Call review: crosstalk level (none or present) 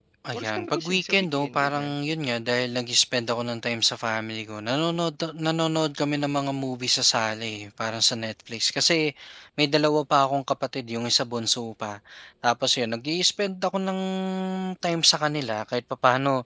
present